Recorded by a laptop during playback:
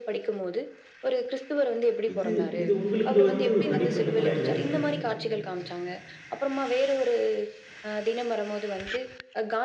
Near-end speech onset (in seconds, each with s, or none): 2.1 s